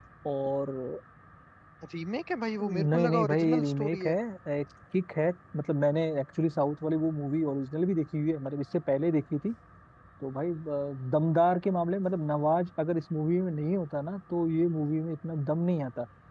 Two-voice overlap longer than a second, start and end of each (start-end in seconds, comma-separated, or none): 2.6-4.1